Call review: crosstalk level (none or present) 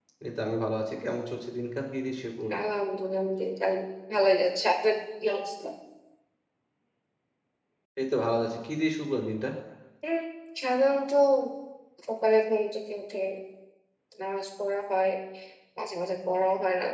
none